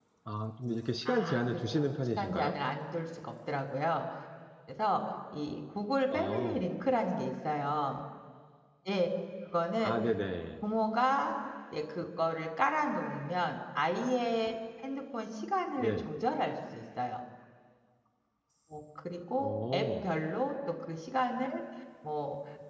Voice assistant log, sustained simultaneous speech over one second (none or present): present